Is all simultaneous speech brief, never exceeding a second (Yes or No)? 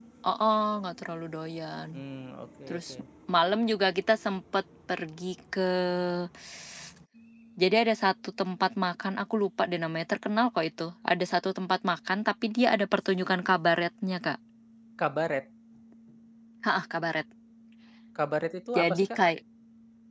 Yes